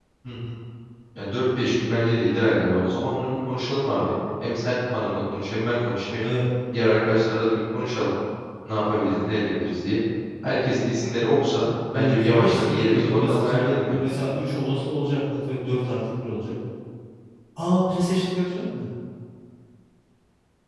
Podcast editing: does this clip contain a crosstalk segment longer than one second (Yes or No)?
Yes